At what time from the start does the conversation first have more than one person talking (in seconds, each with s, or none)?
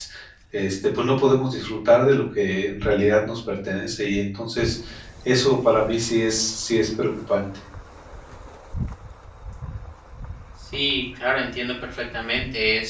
none